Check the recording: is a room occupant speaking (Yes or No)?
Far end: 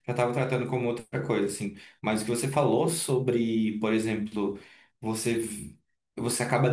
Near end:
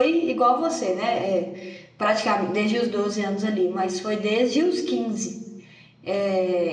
Yes